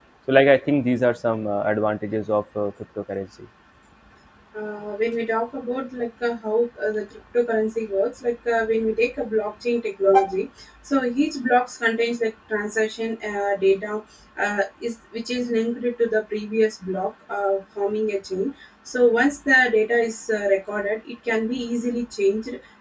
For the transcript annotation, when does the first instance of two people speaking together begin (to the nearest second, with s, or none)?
none